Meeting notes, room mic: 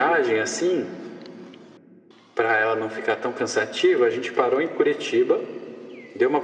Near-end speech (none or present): none